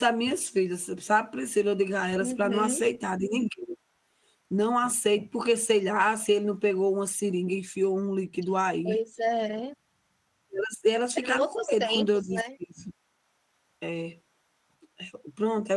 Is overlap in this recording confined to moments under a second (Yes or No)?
No